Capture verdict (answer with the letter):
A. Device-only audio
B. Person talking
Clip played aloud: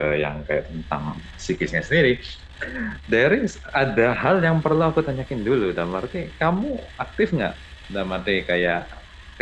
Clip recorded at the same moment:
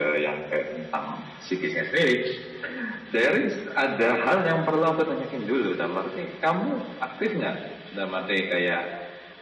A